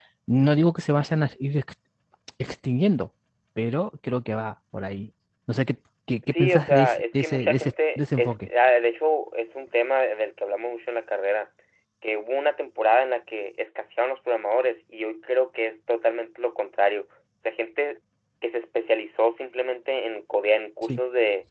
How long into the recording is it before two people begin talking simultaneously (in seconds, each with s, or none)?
6.2 s